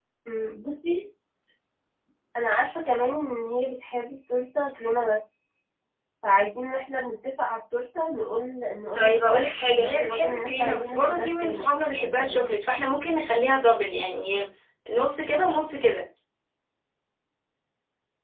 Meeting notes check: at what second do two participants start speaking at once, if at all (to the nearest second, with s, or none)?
9 s